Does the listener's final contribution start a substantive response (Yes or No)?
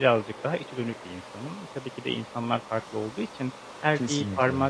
No